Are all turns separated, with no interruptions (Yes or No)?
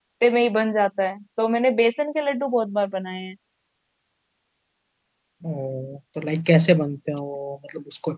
Yes